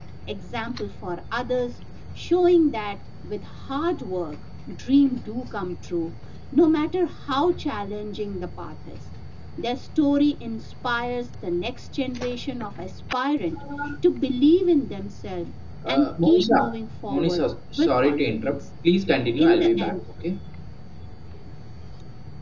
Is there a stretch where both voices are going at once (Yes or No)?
Yes